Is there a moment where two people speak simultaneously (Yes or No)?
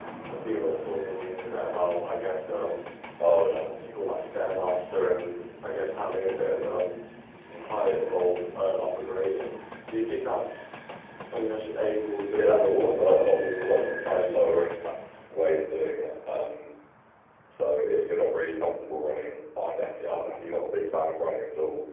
Yes